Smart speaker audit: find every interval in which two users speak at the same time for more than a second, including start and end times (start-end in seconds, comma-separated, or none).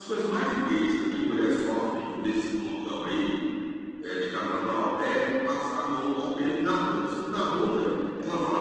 none